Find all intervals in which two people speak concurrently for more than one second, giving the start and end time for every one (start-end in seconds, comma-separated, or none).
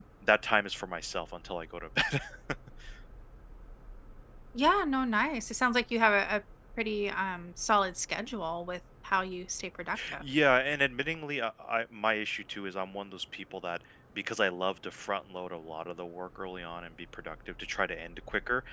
none